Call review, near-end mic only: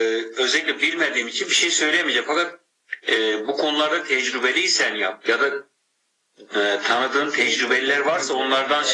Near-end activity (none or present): present